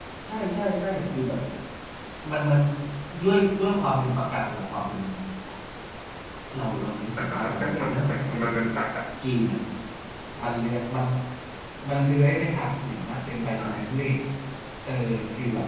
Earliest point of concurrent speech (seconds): 7.3 s

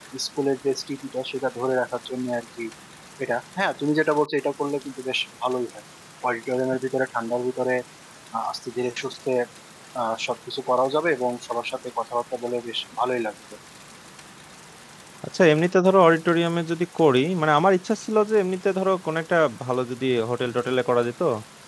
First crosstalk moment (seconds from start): none

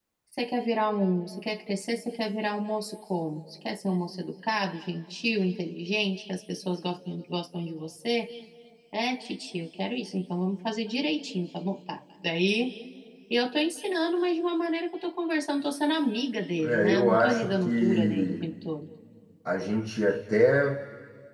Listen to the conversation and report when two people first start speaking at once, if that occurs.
16.6 s

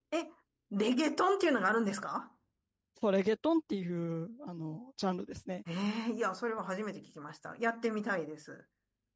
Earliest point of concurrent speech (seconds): none

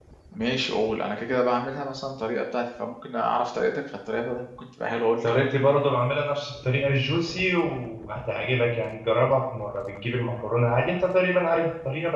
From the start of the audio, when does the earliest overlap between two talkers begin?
none

